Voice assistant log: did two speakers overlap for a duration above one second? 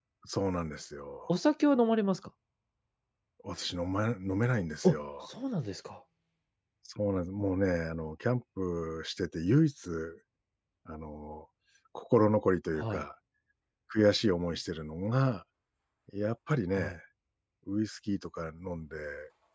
No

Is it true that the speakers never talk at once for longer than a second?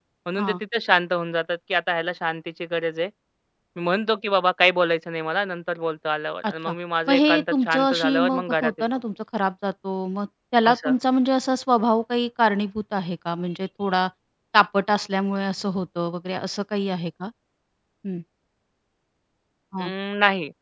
No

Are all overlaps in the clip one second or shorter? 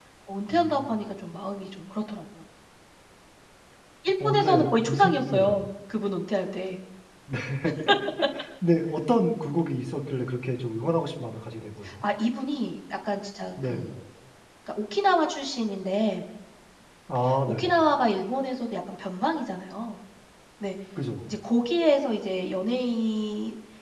No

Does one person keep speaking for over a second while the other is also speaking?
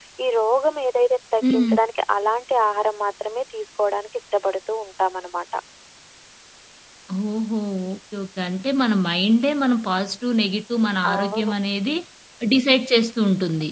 No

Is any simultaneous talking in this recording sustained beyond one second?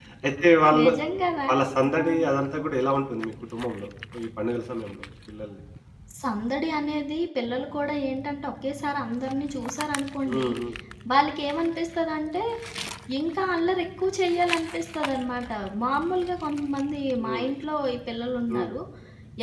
No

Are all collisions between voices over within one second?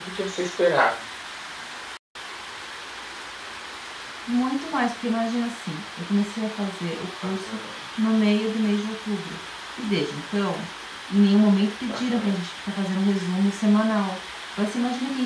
Yes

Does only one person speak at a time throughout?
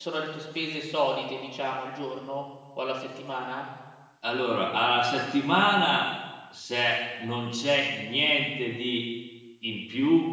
Yes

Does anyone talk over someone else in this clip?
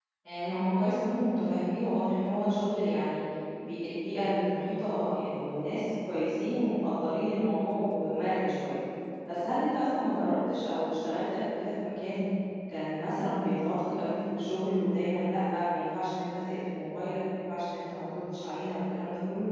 No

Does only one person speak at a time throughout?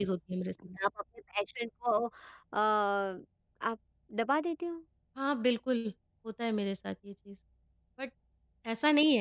Yes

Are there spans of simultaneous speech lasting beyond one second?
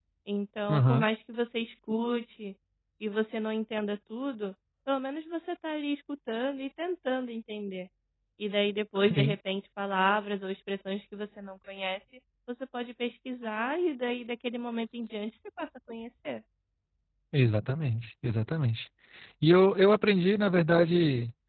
No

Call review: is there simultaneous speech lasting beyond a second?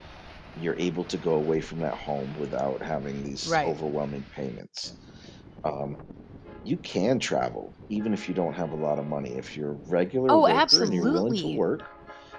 Yes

